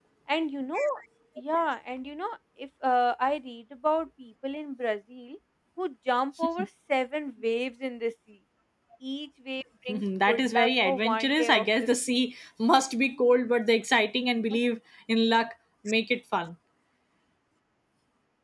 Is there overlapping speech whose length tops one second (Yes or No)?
Yes